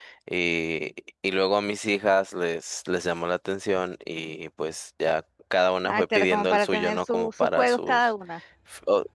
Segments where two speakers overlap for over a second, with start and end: 5.8-8.1

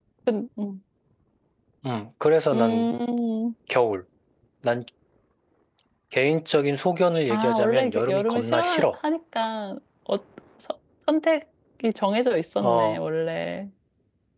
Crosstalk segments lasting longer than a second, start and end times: 7.3-8.8

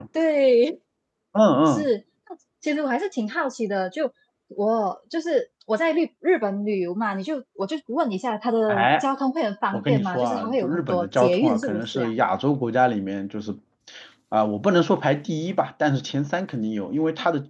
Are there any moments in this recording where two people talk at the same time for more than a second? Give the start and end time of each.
9.7-12.1

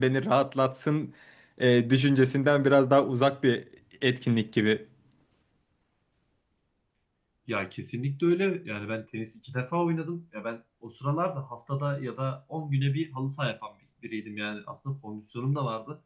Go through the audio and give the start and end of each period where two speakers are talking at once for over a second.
none

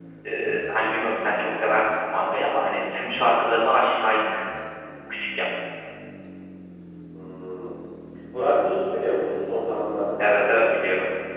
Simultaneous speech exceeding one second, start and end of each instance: none

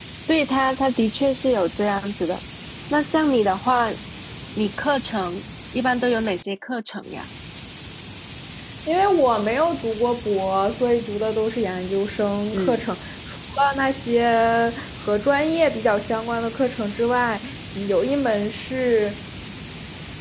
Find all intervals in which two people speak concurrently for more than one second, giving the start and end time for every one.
none

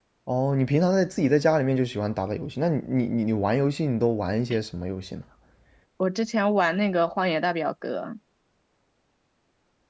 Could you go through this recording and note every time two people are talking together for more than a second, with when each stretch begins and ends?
none

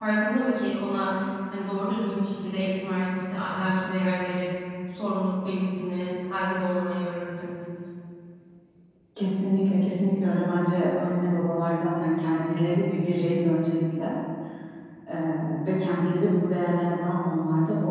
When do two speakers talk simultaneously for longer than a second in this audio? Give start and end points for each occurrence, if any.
none

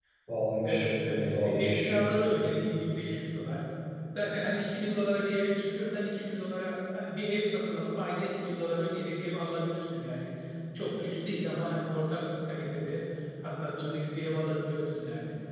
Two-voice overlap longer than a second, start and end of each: 0.6-1.9

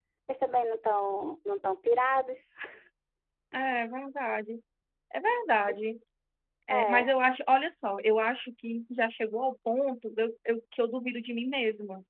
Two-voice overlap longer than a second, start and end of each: none

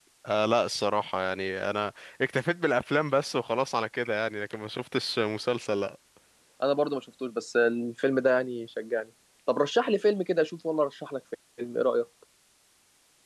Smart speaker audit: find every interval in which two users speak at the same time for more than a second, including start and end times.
none

